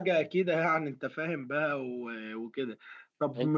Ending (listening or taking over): listening